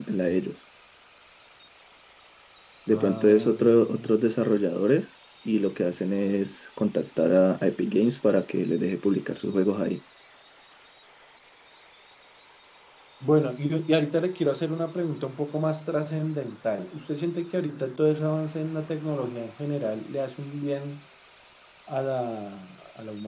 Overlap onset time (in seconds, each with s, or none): 2.9 s